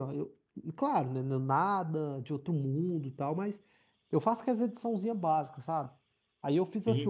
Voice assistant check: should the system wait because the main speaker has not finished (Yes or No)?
Yes